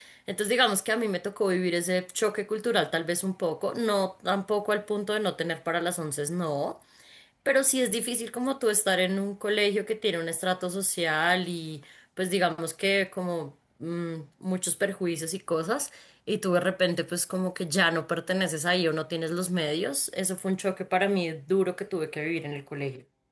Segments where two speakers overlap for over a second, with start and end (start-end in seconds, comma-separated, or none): none